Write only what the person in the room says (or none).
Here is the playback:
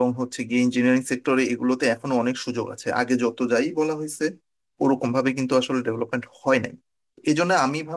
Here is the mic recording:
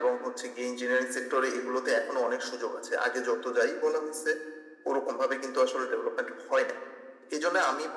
none